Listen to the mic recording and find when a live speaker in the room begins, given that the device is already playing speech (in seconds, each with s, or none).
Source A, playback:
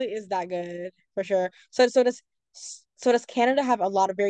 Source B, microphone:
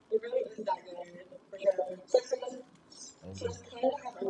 3.2 s